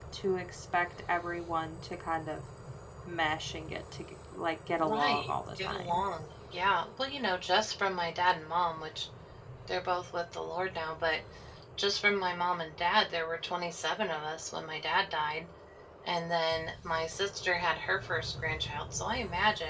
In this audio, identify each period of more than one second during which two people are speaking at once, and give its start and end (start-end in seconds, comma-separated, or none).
4.8-6.0